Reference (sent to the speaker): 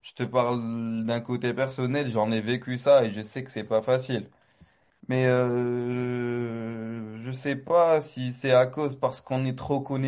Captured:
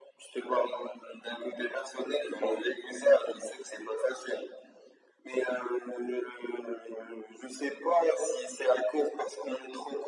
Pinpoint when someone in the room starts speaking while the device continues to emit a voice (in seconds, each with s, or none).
none